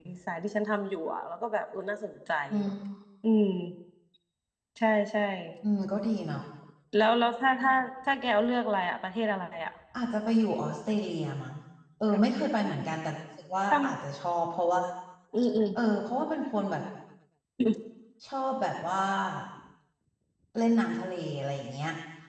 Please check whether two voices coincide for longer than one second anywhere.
No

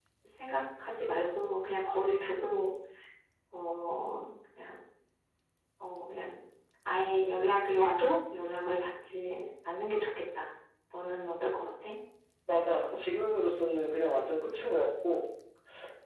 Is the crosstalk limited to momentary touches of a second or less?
Yes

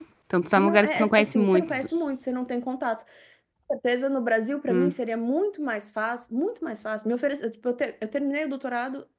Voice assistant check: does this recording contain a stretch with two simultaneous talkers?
Yes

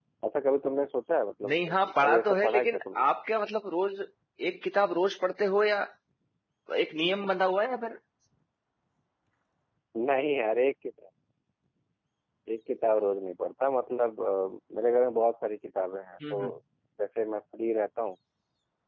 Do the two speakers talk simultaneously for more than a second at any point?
Yes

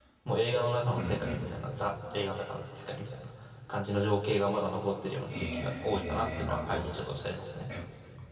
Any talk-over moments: Yes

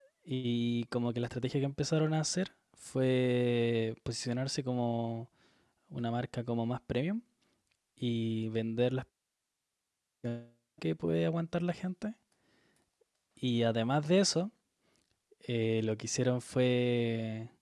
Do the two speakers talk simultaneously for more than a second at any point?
No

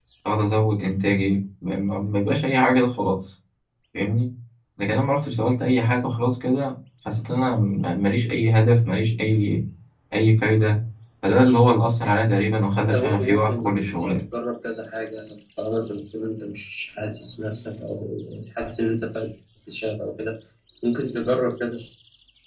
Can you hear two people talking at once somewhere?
Yes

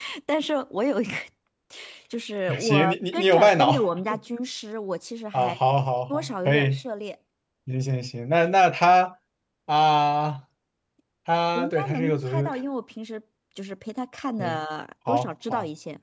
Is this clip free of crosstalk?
No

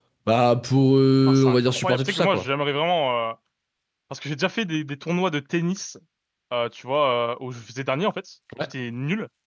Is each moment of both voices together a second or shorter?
No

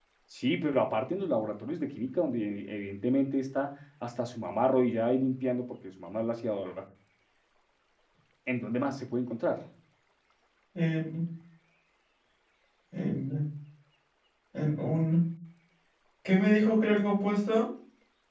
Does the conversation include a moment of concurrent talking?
No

